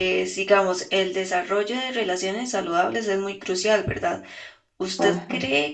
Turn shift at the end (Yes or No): No